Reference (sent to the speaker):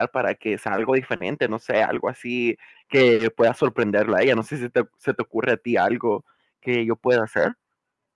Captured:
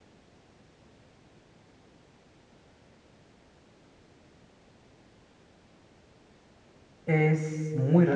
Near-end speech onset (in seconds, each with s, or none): 7.0 s